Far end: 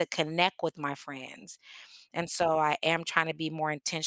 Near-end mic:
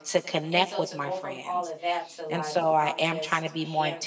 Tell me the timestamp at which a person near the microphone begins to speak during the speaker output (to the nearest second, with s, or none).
0 s